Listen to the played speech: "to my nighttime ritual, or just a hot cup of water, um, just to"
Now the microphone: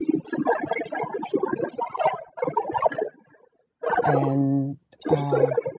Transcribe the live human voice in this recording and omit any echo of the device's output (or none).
and uh,